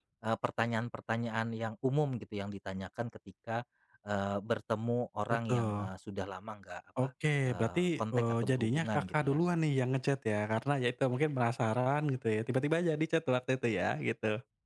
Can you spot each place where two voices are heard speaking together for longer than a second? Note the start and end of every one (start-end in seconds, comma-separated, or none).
7.5-9.6